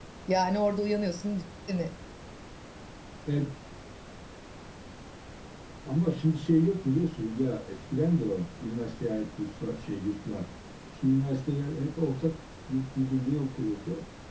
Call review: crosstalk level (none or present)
none